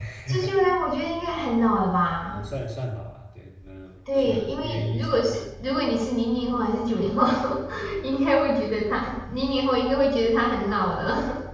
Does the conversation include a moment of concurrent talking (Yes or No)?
Yes